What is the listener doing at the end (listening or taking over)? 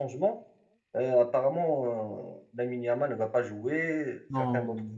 listening